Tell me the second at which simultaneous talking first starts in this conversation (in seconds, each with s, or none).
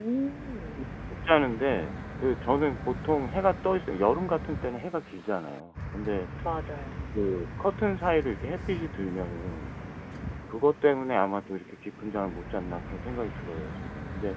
none